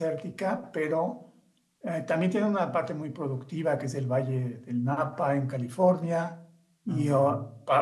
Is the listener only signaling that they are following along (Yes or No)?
Yes